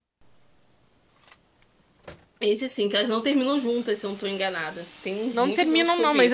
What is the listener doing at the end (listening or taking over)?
taking over